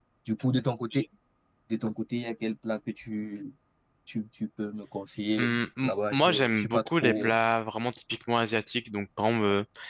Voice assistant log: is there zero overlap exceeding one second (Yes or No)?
No